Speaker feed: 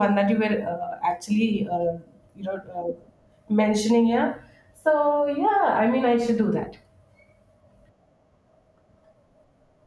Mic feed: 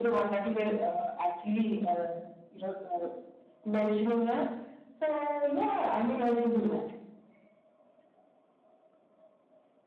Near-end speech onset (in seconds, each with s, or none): none